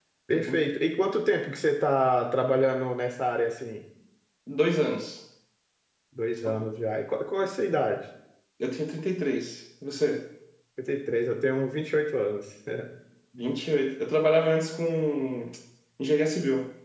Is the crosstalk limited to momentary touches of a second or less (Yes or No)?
Yes